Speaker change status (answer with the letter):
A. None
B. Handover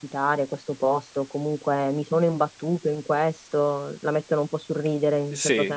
B